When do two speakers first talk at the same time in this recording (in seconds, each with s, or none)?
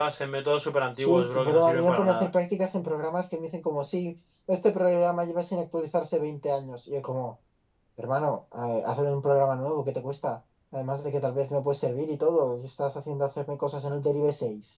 0.9 s